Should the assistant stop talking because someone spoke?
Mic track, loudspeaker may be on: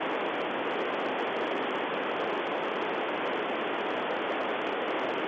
No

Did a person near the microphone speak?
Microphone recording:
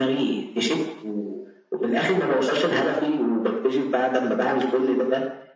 No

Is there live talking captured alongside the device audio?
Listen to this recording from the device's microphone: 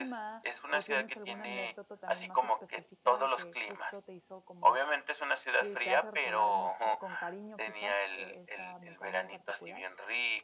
Yes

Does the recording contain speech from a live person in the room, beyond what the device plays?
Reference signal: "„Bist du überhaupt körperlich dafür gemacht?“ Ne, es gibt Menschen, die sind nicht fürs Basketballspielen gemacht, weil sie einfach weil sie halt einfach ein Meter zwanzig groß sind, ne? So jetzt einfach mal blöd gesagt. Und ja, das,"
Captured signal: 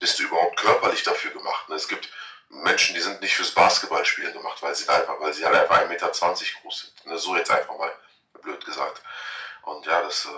No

